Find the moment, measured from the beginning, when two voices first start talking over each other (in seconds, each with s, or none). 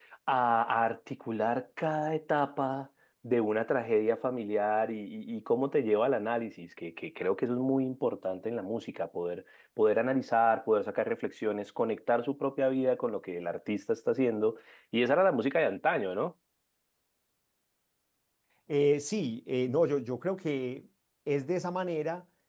none